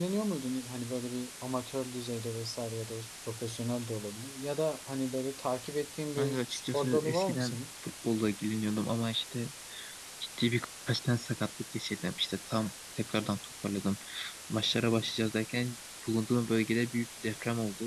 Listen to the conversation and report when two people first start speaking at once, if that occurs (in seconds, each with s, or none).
6.2 s